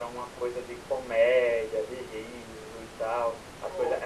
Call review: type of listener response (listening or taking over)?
listening